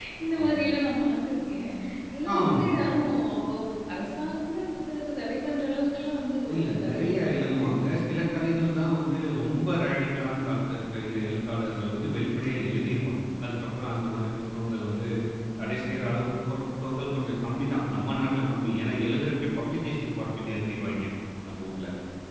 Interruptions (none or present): present